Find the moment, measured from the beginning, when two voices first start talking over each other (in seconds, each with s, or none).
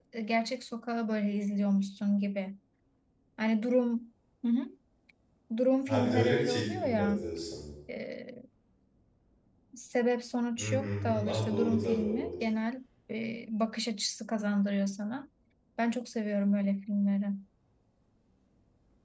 5.9 s